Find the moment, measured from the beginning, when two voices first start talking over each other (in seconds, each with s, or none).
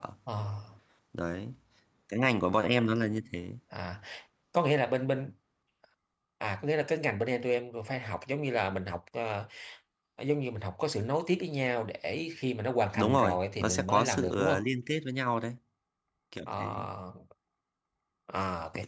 12.9 s